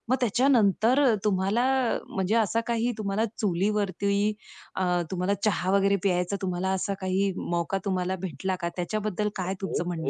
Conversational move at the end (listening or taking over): taking over